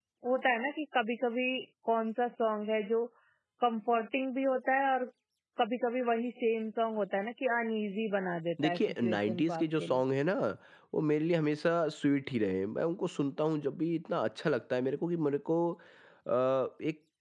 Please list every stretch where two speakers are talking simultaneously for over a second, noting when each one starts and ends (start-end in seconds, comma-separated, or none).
8.6-10.0